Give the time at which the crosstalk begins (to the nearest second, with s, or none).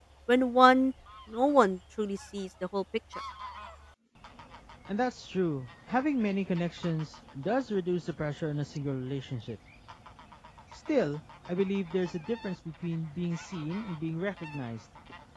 none